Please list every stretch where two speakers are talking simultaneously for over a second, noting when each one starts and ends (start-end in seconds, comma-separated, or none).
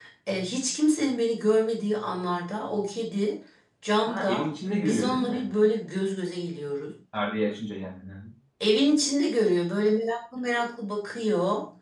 4.1-5.4